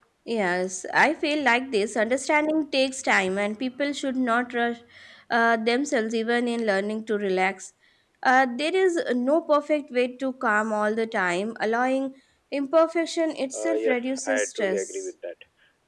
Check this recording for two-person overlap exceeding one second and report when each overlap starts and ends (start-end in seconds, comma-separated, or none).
13.5-15.1